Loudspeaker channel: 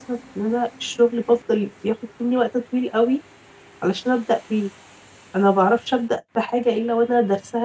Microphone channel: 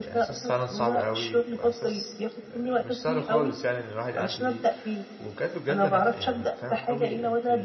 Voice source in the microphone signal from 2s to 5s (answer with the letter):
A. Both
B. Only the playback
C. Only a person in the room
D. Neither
A